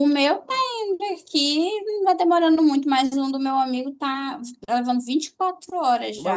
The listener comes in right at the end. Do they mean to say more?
Yes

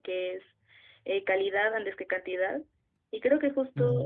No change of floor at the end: Yes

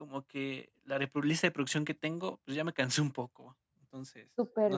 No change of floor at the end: Yes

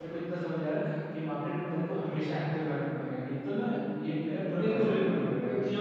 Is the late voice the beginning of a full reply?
Yes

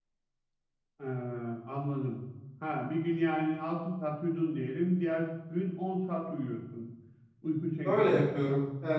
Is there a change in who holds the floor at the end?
Yes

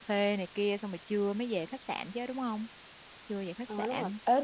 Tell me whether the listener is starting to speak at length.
Yes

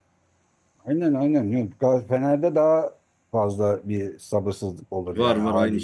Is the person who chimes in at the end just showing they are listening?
No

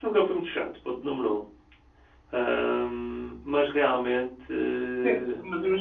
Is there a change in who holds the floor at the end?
Yes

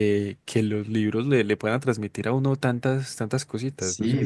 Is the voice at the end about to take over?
Yes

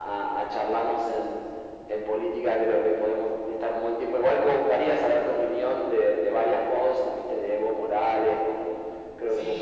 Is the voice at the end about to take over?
Yes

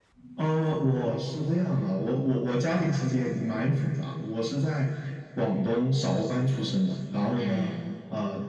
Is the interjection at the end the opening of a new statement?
No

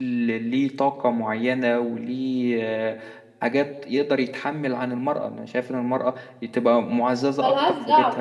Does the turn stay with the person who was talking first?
No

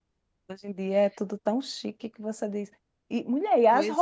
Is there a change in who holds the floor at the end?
No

